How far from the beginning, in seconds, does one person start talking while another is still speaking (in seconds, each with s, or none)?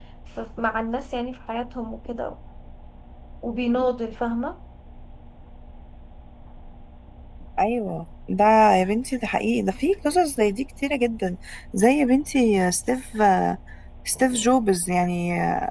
none